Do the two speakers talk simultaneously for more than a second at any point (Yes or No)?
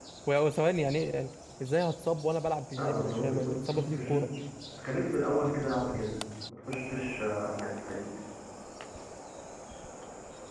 Yes